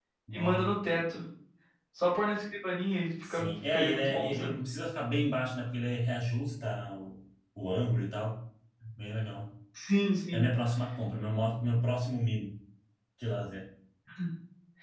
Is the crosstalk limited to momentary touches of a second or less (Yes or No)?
No